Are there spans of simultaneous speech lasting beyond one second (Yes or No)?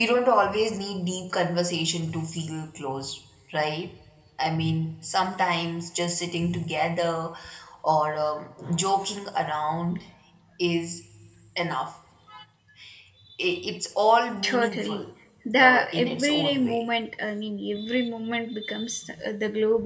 Yes